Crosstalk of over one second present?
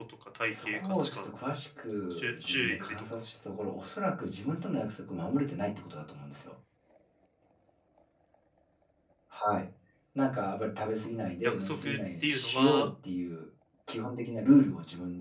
Yes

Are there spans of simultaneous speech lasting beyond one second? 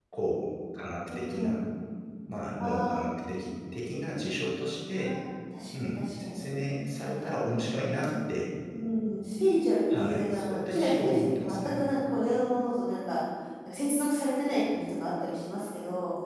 Yes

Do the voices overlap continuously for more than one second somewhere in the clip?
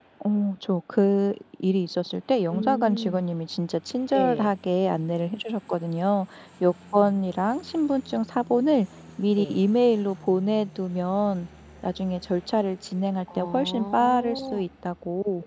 Yes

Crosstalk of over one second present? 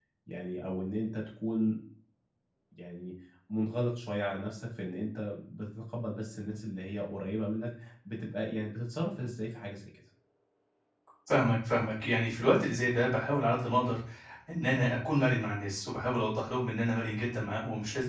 No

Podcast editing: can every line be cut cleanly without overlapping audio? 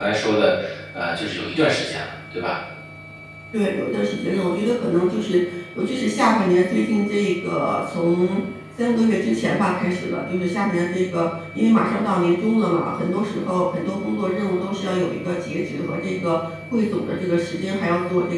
Yes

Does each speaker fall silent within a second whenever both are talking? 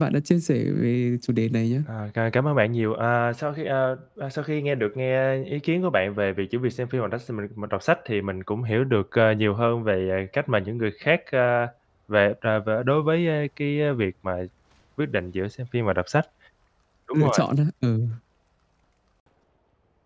Yes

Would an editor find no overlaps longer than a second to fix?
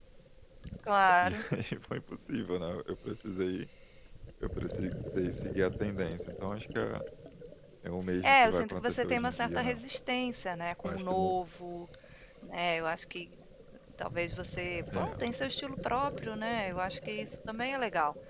No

